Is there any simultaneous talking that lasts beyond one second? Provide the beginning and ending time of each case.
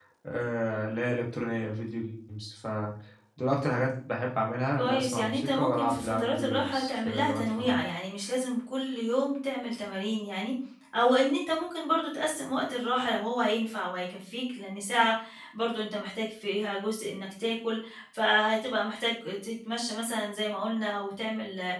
4.8-7.8

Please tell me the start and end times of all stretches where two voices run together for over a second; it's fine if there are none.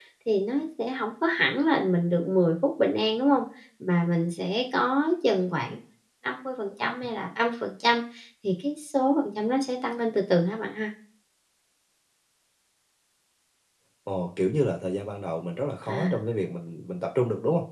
none

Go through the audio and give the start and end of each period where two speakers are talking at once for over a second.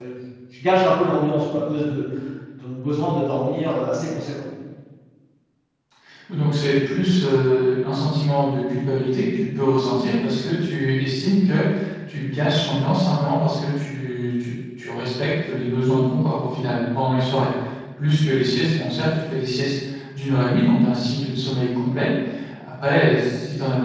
none

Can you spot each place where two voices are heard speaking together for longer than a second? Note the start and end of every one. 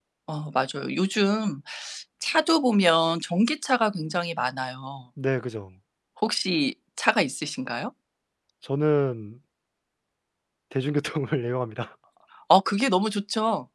none

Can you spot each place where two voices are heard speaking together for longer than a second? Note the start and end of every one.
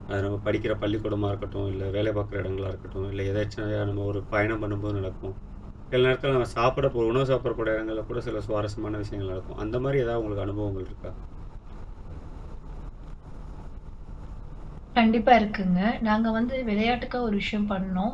none

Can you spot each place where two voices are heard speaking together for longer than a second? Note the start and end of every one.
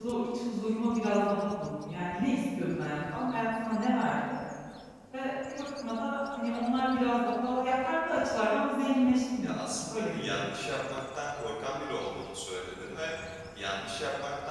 9.4-10.8

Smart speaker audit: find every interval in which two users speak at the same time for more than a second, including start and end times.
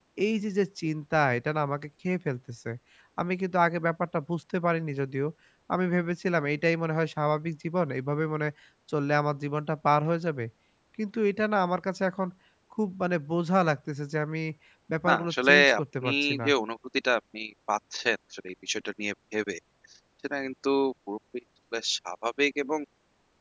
15.1-16.5

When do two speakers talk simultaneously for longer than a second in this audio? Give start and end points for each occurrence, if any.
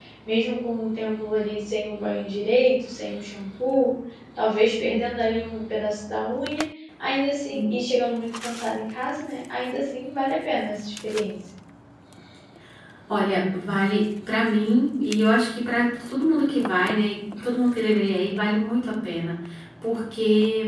none

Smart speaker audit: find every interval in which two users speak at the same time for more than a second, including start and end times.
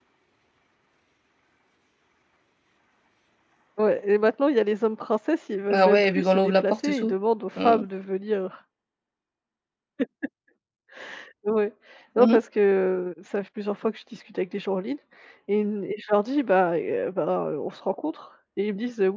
5.7-7.1

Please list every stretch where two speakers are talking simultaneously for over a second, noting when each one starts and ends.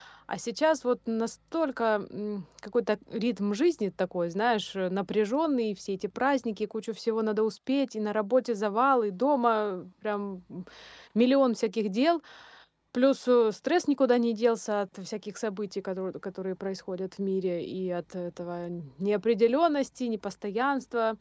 none

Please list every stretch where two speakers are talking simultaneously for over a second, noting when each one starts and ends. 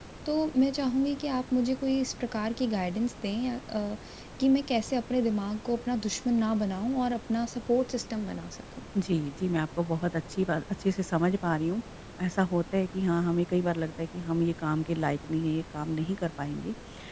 none

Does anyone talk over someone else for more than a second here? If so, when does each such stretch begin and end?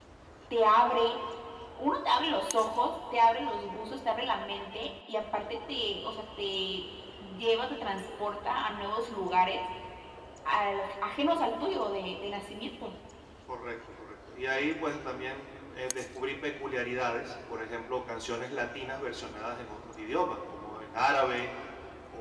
none

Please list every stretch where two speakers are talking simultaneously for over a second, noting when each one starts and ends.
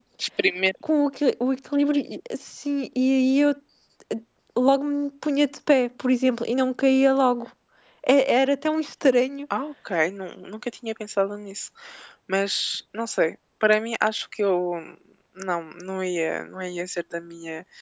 none

